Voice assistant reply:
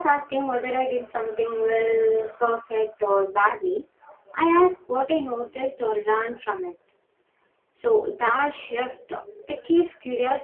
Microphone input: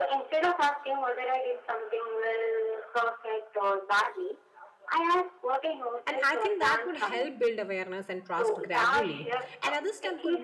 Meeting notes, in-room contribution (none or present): present